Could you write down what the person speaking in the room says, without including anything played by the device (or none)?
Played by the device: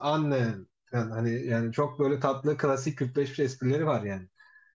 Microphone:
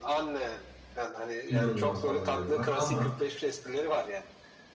İnanılmaz fazla bölüm var. Ama